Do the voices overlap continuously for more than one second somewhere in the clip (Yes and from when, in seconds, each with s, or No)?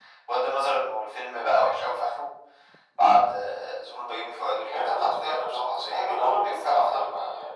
Yes, from 4.6 s